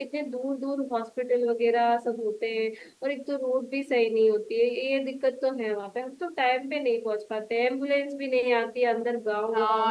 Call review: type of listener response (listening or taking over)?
taking over